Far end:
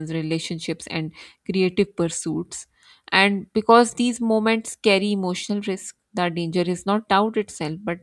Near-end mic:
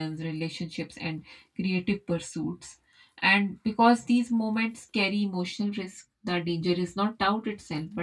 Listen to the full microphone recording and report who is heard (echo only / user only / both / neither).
echo only